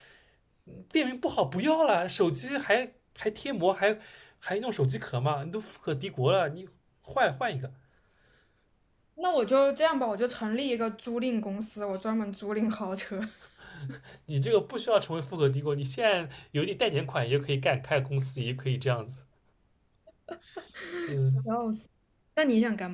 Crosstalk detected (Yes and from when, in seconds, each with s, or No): No